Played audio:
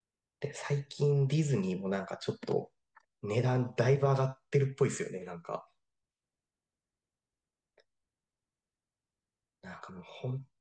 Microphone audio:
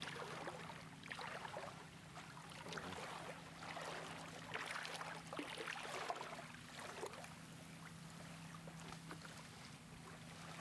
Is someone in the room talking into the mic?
No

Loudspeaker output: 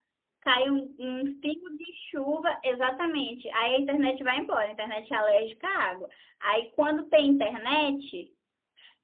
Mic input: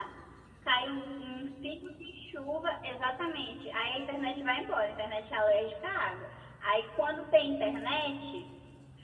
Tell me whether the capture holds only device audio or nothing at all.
Yes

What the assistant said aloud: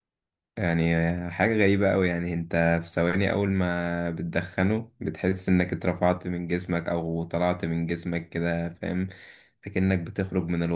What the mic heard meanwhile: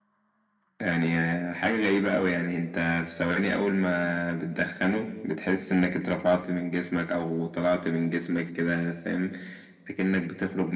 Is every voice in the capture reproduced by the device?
Yes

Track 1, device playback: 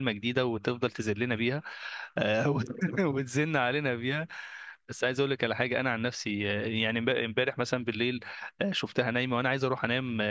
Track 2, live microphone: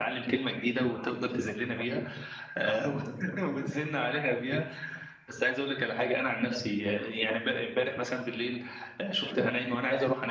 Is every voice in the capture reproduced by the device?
Yes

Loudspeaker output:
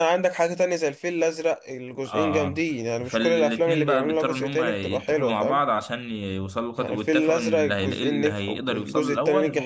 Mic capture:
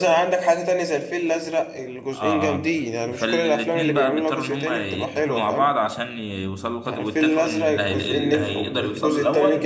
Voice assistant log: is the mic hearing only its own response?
Yes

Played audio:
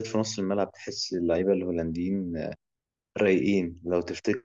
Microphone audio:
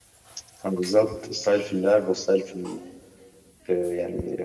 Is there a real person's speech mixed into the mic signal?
Yes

